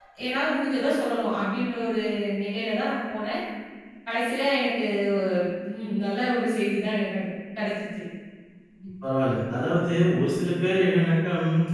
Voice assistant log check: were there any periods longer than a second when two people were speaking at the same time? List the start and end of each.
none

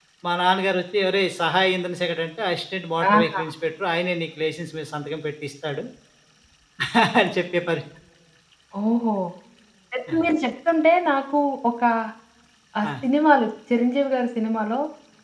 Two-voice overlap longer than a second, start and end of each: none

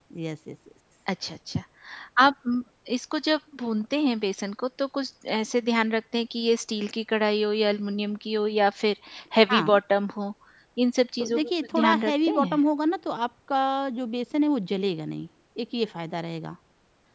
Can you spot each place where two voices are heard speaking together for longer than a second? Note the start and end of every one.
11.2-12.6

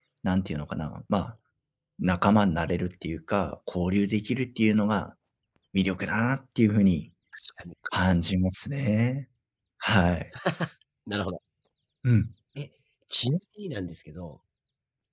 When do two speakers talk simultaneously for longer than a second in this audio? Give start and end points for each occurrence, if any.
none

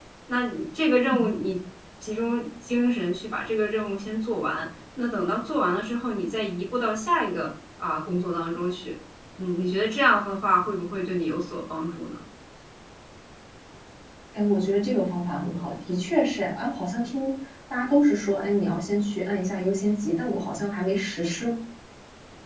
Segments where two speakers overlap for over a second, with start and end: none

